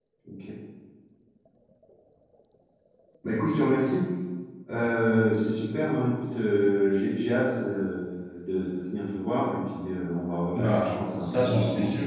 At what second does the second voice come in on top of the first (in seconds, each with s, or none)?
10.5 s